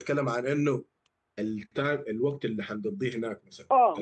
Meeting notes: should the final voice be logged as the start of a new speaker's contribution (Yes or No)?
Yes